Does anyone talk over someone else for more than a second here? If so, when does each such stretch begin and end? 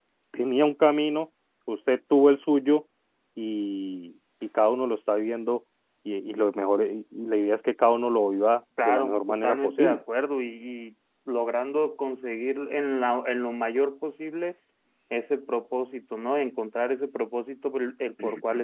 8.8-10.0

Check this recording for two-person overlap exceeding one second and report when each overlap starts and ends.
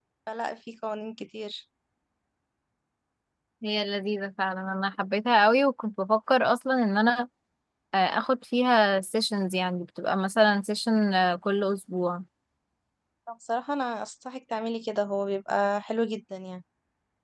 none

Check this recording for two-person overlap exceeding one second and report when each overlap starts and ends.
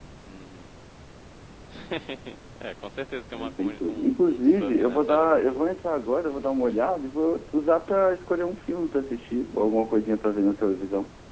3.3-5.7

